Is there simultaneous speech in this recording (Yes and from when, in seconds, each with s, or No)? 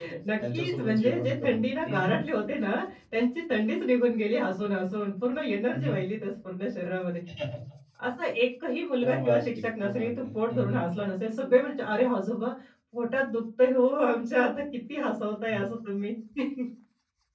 Yes, from 0.5 s